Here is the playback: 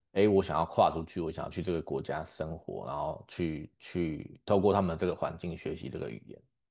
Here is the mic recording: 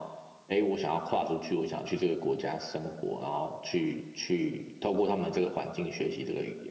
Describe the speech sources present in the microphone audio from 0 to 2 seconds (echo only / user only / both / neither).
echo only